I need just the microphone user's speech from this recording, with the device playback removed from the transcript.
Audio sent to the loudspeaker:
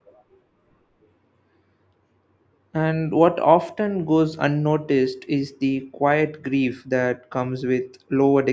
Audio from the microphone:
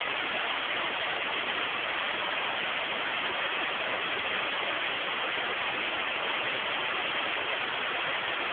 none

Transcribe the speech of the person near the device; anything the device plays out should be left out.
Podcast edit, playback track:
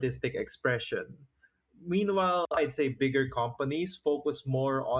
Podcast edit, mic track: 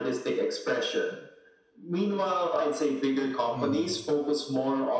Mhm.

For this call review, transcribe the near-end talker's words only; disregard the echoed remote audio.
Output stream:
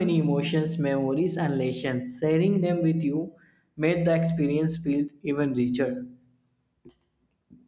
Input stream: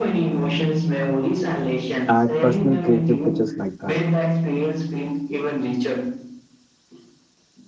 add personal creative touches like that.

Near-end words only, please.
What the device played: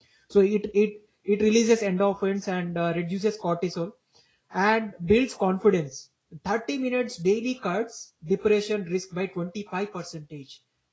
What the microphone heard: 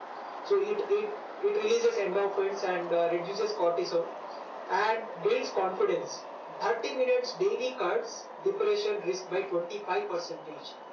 none

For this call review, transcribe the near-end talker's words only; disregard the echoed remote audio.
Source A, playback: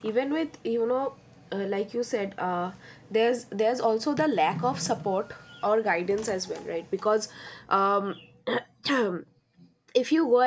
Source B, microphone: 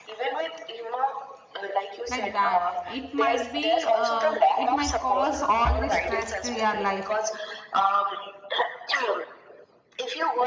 like that it might be uh it might cause all this stress to your life

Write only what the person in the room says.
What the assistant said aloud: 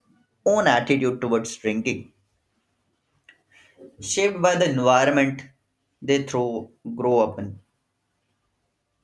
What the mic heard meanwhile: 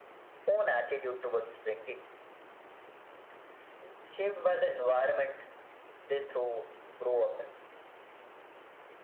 none

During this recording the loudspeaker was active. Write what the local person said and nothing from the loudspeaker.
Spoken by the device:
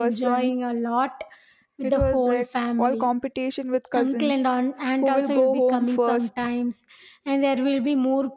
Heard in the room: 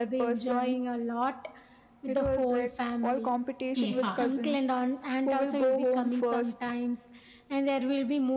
Yeah.

